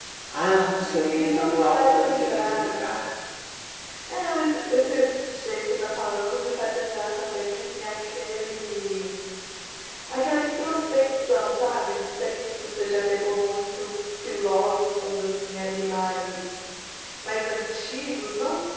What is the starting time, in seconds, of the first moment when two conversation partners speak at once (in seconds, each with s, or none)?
0.8 s